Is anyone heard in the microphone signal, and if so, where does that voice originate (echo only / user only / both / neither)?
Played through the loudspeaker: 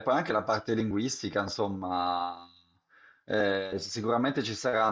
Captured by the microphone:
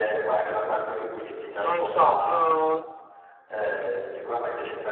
both